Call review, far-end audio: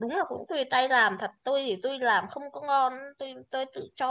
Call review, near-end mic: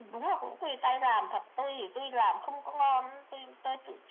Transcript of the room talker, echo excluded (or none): none